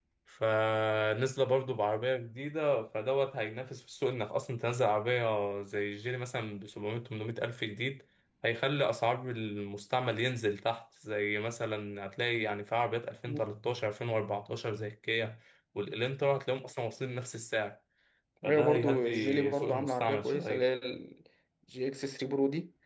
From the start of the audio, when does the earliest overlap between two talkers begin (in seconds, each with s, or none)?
18.5 s